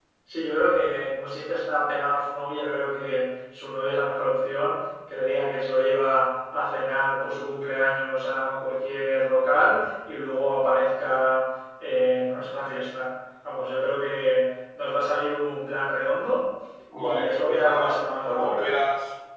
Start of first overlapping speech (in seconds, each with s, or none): 17.0 s